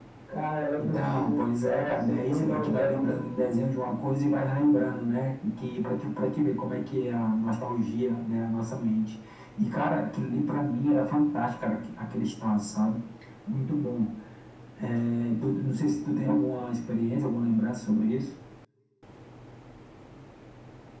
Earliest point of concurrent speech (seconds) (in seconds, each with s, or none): 0.8 s